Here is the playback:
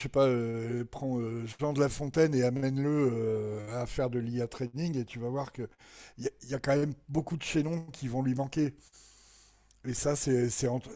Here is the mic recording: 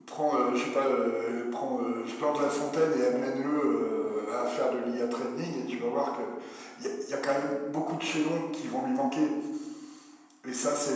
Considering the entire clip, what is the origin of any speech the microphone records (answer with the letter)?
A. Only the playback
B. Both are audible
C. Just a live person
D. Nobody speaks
A